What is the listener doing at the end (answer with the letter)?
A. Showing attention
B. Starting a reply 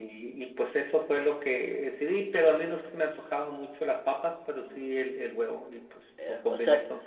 B